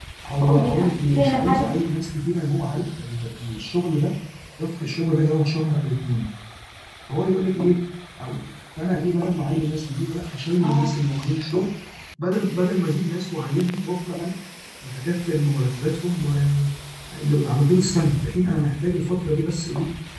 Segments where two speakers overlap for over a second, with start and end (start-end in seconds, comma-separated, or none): 0.5-1.9